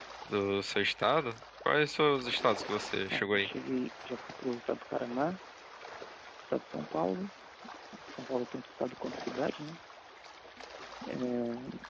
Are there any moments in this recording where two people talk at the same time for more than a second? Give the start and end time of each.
none

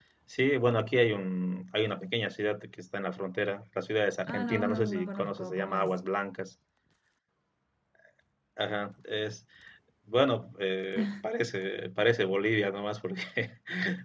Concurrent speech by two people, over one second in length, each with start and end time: 4.2-6.0

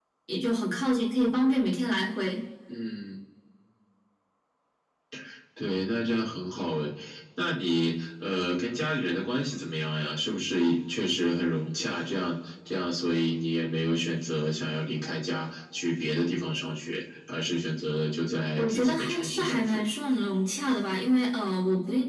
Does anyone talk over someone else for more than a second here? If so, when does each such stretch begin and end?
18.6-19.8

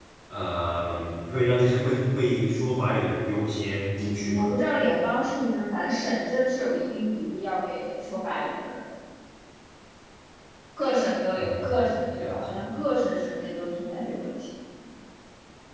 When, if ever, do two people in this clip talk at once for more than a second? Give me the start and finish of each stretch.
11.3-12.6

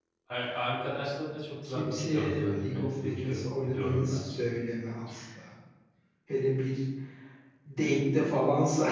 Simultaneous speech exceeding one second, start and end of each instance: 1.6-4.3

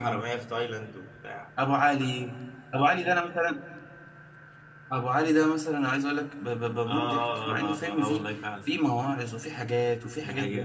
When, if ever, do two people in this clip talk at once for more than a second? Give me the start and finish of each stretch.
6.9-8.2

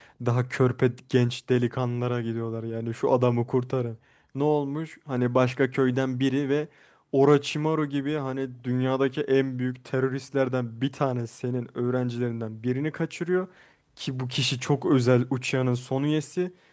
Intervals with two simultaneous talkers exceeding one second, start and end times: none

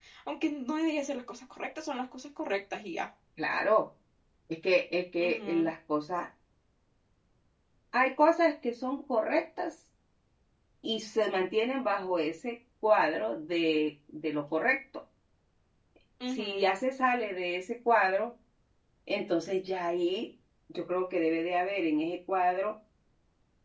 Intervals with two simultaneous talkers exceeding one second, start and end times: none

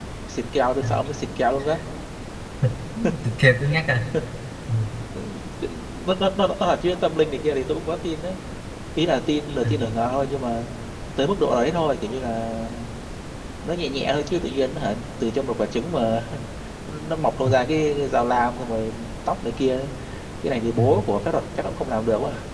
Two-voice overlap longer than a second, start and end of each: none

